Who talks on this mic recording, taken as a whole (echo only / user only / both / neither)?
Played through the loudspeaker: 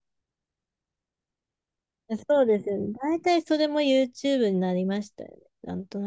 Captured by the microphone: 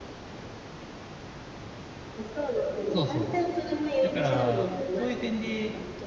both